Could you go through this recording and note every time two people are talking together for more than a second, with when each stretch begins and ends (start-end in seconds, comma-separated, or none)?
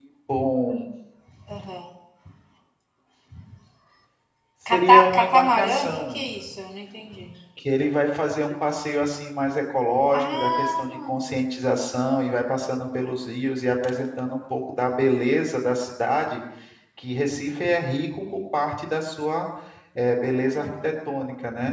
4.7-6.2, 10.1-11.4